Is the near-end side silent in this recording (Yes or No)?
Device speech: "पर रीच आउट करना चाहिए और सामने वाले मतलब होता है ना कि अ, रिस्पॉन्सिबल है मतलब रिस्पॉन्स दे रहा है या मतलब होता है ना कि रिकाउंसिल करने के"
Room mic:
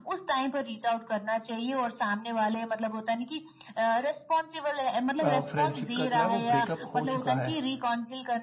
No